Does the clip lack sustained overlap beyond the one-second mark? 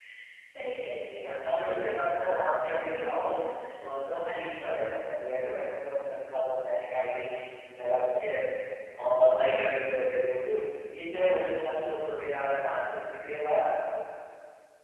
No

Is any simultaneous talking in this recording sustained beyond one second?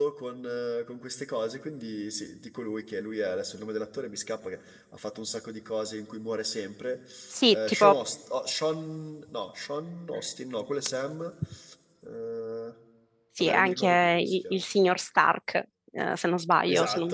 Yes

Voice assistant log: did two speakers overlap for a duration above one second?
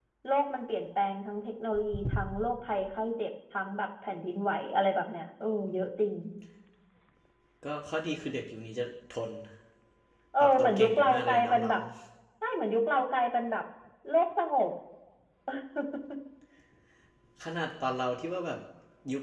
Yes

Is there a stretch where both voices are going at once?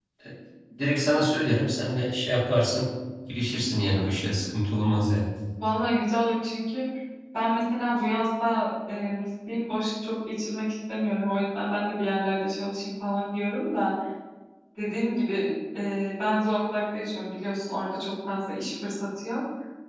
No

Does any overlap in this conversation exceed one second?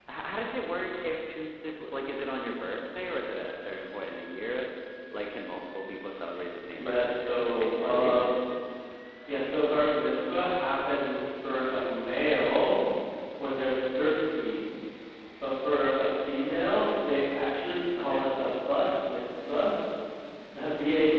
Yes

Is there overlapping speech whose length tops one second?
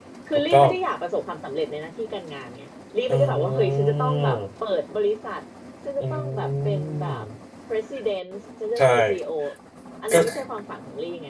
Yes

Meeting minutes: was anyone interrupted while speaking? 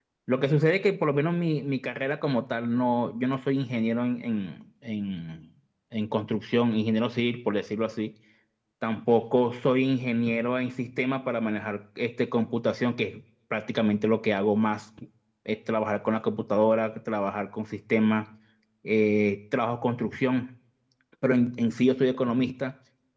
No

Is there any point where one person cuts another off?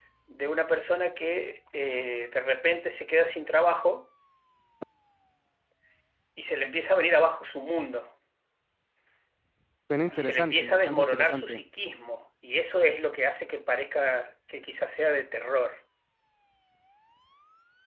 Yes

